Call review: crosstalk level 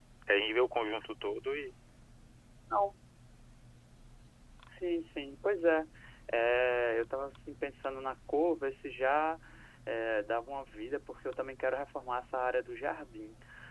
none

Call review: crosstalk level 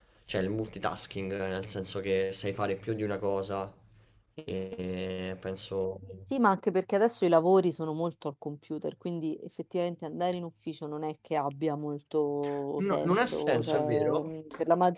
present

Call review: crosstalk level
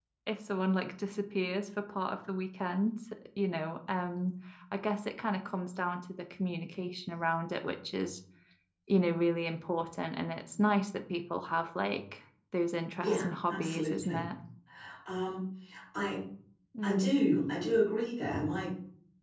present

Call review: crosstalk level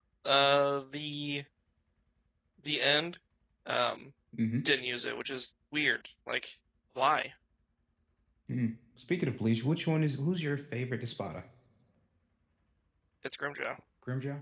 none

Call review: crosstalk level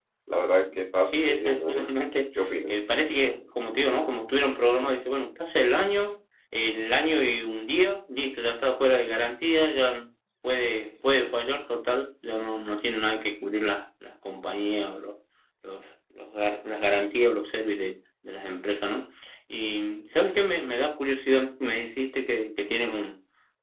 present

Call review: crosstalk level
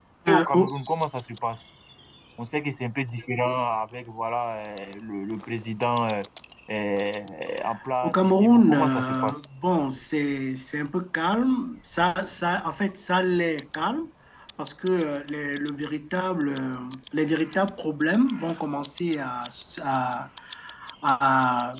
present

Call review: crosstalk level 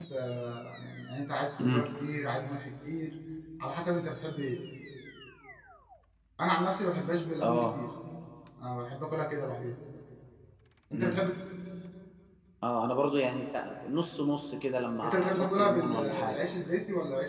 present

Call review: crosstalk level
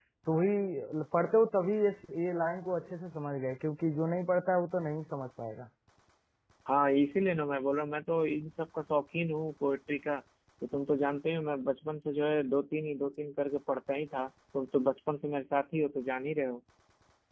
none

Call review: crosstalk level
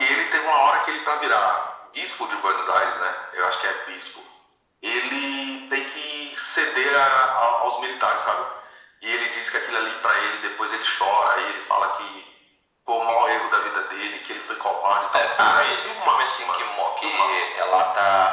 present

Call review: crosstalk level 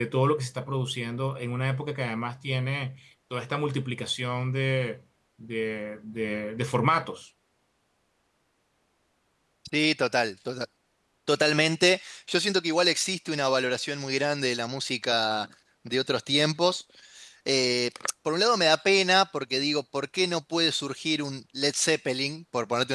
none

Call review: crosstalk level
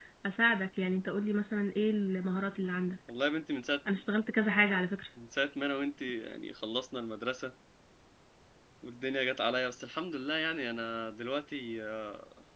none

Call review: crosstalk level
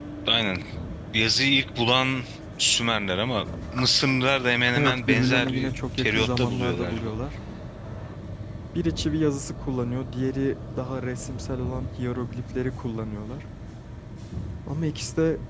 present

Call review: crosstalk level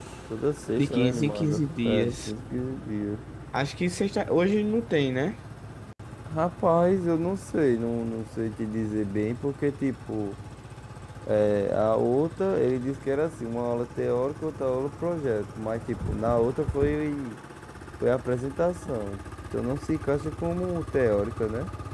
present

